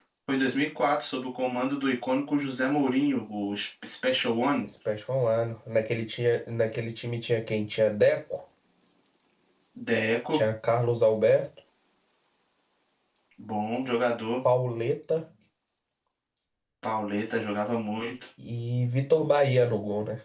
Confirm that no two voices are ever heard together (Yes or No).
Yes